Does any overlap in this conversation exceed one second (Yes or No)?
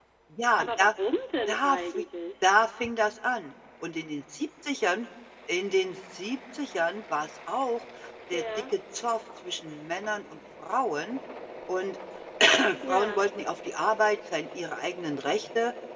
No